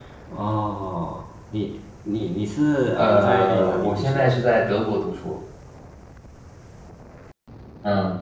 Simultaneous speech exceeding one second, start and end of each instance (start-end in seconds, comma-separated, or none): 3.0-4.3